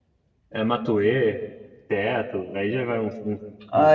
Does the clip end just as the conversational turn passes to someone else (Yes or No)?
Yes